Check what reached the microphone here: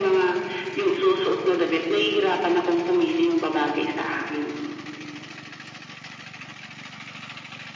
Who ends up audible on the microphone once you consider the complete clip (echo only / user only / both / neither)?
echo only